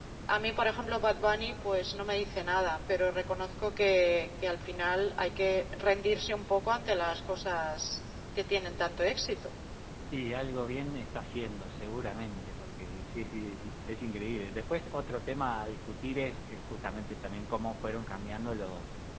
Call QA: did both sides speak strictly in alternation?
Yes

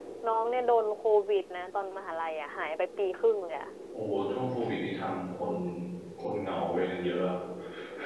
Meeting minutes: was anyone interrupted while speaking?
No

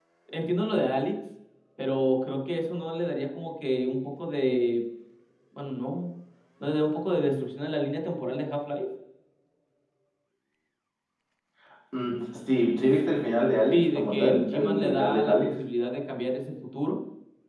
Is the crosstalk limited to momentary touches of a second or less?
No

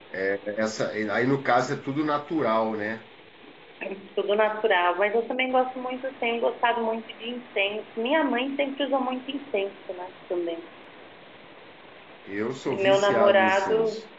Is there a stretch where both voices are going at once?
Yes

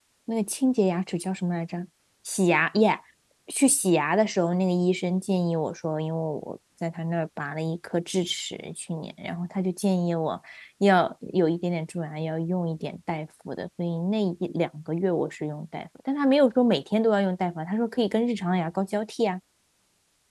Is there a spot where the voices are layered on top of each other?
No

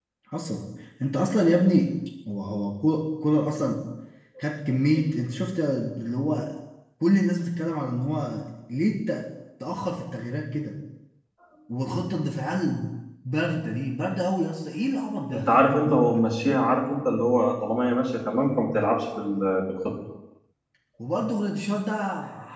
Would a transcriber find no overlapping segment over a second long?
Yes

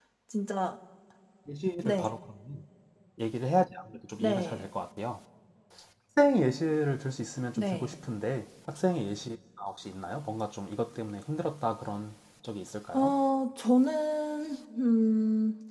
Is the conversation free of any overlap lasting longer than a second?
Yes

